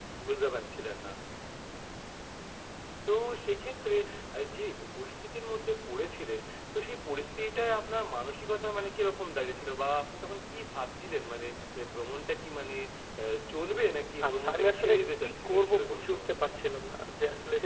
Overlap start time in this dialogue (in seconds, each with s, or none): 14.2 s